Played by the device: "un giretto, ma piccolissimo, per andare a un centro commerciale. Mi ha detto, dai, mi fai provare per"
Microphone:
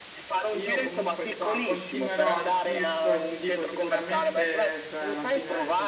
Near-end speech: present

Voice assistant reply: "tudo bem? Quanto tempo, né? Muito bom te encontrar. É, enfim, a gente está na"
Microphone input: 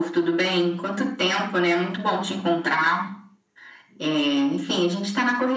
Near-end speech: none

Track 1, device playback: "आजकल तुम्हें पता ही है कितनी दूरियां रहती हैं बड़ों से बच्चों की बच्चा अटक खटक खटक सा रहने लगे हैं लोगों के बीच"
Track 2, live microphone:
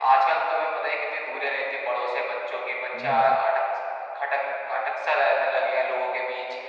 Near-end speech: present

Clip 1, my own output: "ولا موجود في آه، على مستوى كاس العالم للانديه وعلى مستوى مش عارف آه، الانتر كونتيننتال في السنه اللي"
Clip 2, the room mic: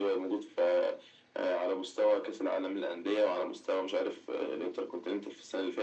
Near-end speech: none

